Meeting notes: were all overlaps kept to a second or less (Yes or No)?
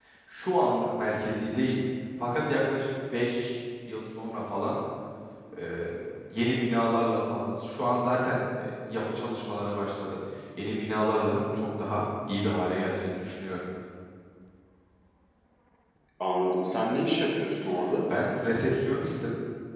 Yes